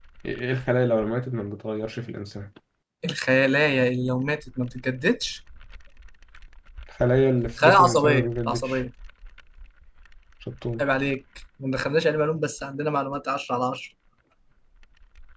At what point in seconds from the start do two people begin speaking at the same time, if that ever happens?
7.6 s

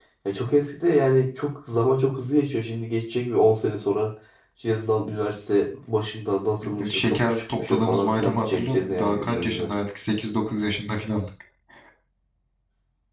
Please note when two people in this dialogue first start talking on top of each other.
6.6 s

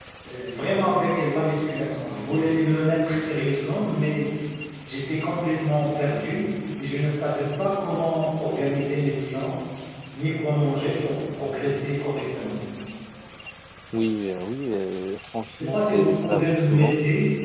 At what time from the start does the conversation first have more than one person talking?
15.6 s

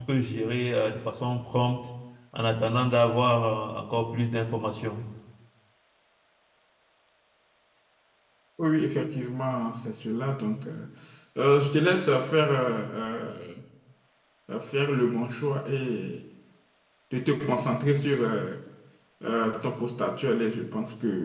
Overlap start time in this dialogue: none

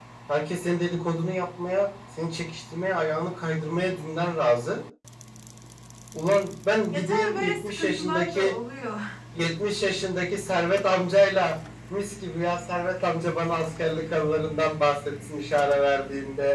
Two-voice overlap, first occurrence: 6.9 s

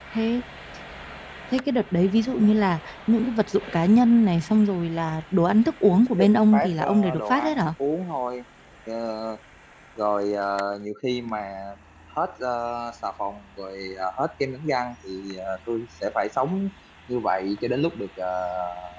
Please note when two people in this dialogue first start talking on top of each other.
6.1 s

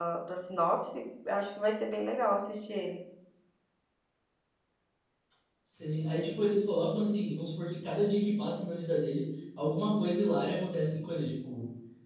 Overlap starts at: none

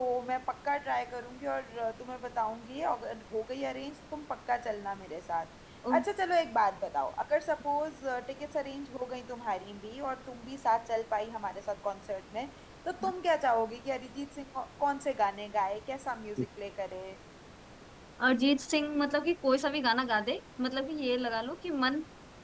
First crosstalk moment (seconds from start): none

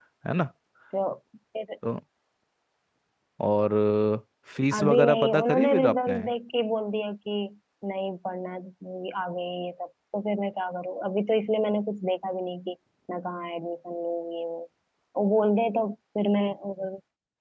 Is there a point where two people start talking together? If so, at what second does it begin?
4.8 s

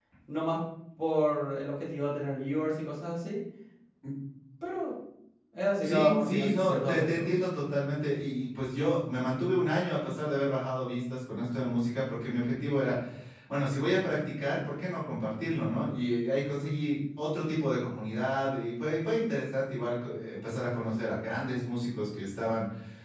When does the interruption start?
5.8 s

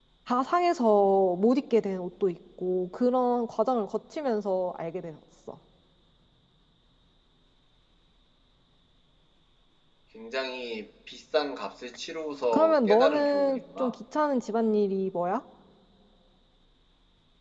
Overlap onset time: 12.5 s

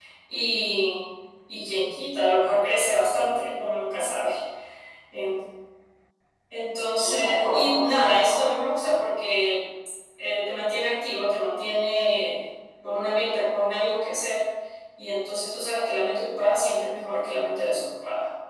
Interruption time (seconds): 7.0 s

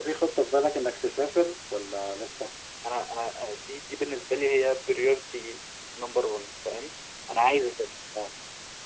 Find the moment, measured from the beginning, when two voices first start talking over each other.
none

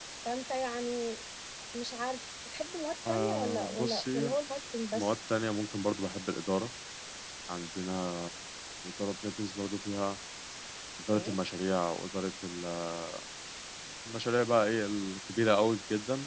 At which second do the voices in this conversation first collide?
3.0 s

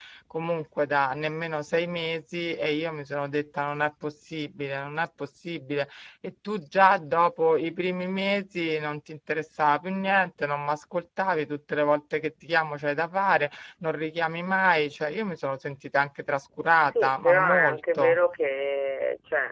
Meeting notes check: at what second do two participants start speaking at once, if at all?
16.8 s

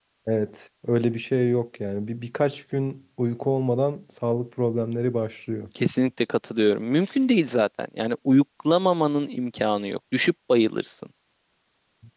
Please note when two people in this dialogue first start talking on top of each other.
none

